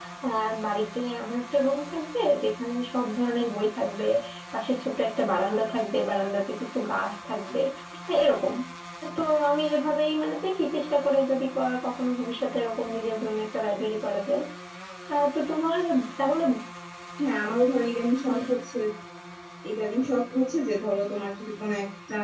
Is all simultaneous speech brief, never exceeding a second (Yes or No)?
Yes